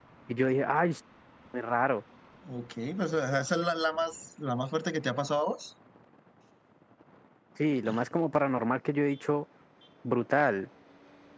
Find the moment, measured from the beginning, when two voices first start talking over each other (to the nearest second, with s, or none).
none